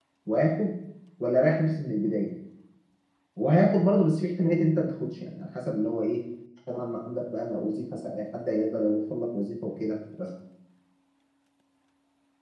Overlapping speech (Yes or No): No